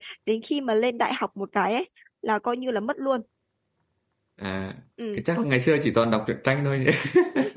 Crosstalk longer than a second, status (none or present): none